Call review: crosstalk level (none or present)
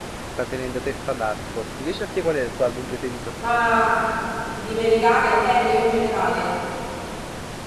none